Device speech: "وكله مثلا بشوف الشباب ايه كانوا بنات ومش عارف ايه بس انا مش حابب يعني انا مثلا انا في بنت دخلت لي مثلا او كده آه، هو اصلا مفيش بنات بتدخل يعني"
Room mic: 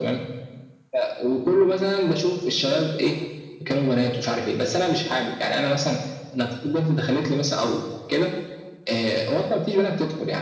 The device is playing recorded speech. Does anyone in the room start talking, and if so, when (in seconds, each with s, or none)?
none